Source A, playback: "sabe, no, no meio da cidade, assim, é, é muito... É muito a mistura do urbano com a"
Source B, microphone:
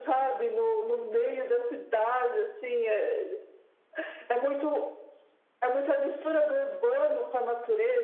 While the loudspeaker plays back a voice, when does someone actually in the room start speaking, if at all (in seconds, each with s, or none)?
none